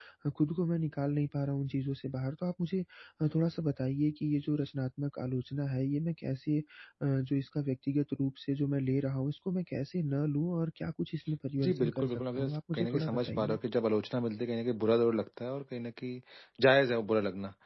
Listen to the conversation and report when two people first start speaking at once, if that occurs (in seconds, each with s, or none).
11.6 s